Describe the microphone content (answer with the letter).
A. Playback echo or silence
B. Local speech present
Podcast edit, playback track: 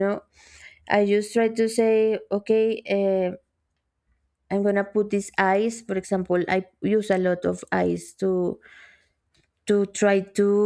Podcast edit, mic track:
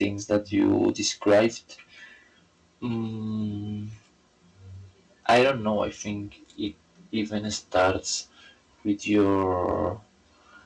B